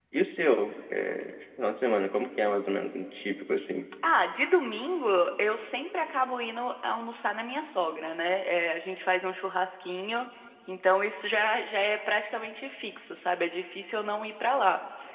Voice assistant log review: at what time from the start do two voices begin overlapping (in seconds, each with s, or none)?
none